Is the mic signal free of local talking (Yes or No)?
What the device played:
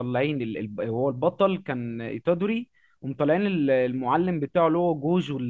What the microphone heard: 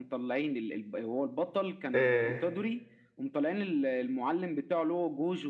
No